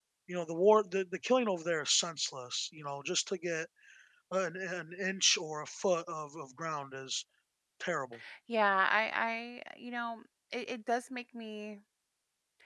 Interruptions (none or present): none